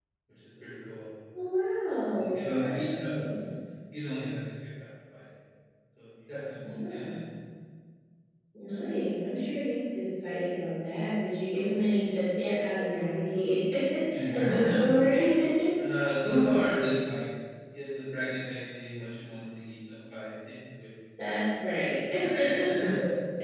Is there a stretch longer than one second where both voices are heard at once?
Yes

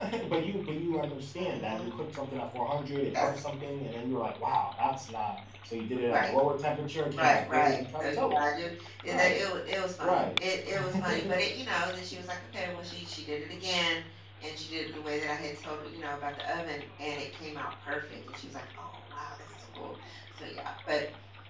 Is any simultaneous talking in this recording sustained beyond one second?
Yes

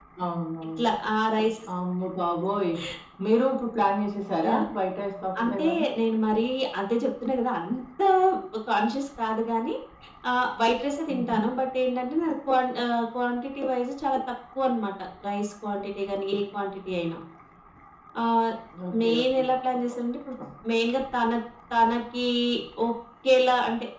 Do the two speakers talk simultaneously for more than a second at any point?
No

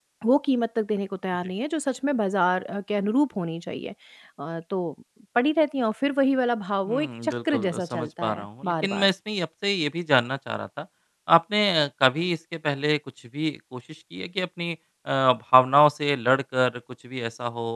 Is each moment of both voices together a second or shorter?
No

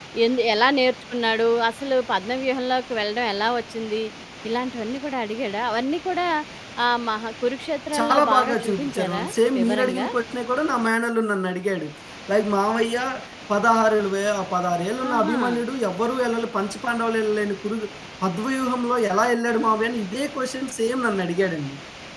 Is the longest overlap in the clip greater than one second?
Yes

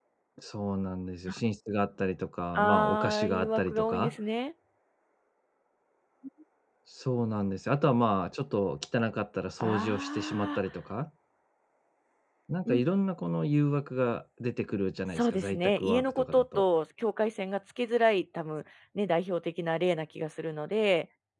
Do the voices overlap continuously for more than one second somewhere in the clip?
Yes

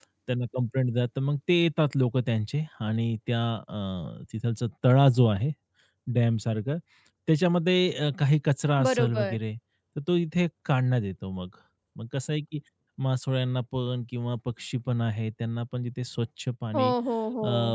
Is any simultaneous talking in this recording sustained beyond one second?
No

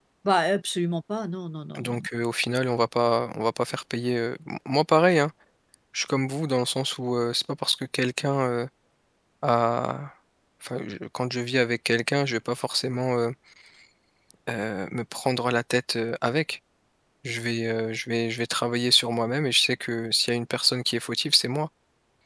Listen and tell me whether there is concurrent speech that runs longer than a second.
No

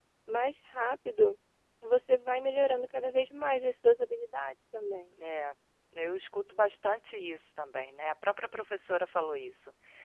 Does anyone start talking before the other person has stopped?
No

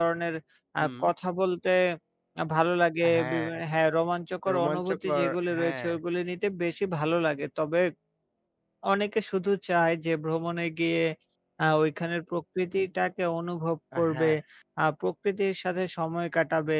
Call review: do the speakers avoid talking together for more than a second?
No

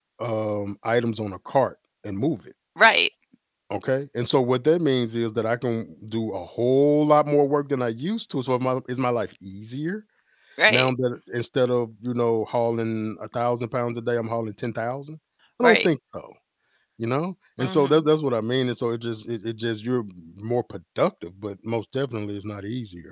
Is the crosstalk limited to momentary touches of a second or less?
Yes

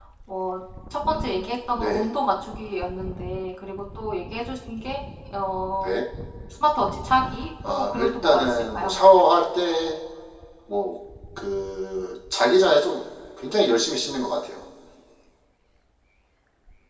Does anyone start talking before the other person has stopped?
Yes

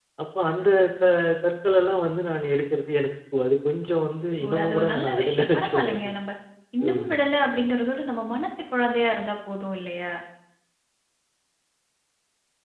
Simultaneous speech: Yes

